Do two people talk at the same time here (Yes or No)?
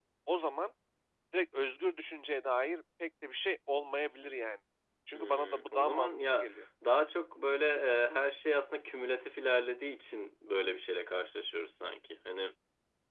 Yes